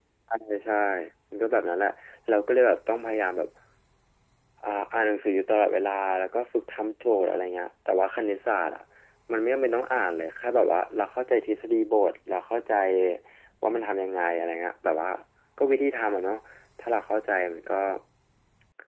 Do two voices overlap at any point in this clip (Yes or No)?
No